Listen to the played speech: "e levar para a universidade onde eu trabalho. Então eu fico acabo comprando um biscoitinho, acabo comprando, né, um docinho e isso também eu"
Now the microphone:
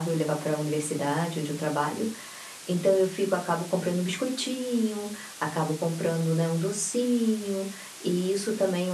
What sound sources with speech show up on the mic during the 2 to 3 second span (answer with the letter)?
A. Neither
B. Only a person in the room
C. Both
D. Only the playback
D